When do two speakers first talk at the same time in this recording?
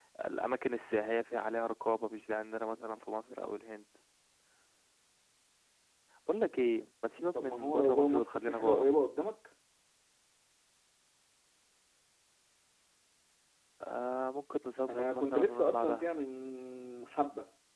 7.4 s

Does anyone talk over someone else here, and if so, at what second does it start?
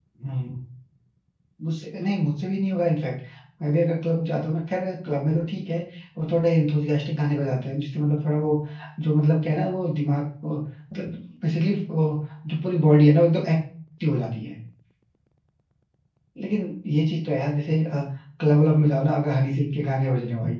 none

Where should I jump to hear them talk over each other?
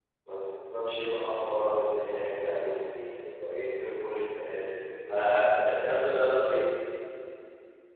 none

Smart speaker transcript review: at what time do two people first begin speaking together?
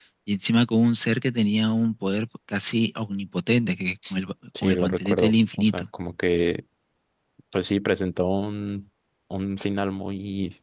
4.6 s

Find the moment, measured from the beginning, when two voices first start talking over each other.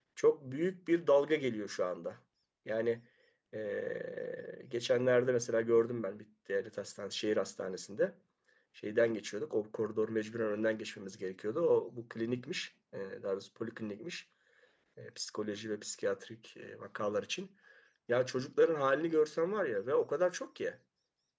none

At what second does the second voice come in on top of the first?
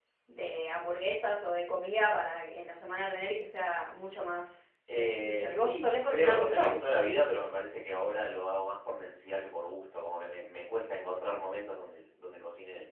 4.9 s

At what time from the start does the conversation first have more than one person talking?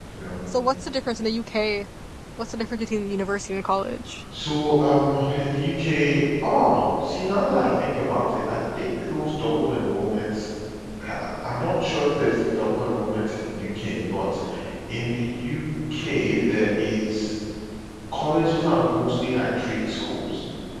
none

